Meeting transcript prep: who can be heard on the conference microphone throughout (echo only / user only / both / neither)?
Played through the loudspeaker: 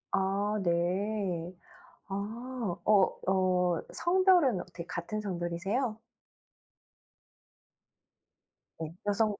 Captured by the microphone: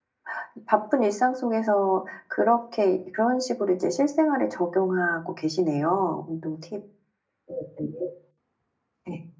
user only